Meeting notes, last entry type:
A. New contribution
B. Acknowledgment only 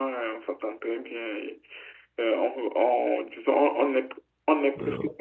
B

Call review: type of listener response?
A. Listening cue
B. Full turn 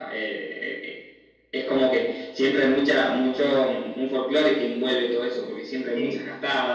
A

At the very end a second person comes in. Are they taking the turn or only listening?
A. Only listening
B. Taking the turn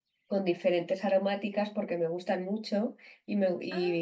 A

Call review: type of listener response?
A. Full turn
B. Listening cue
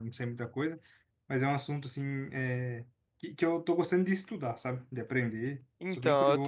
A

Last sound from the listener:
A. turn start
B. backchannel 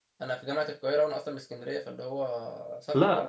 A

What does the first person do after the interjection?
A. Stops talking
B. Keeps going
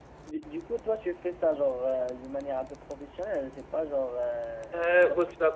A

